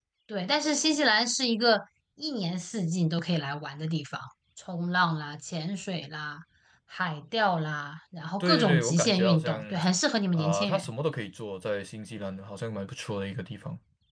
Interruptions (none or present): present